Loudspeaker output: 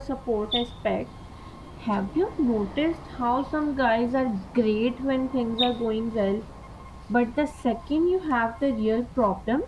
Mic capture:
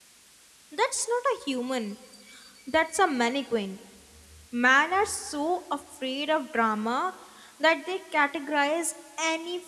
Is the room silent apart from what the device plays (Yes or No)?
No